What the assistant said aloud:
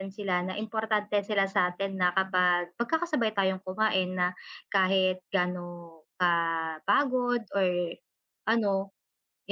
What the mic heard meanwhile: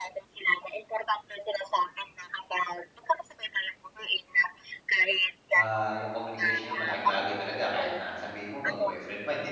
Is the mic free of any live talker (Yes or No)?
No